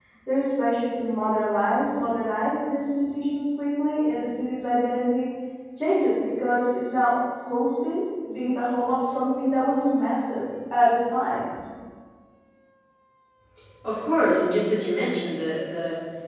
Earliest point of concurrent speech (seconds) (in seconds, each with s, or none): none